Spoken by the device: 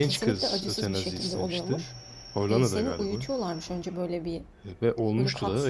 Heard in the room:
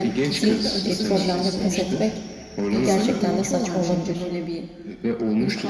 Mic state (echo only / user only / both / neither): both